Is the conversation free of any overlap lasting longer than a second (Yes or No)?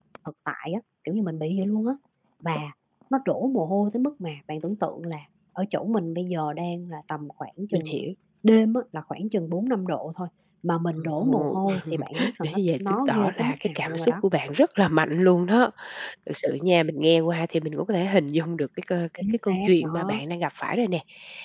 No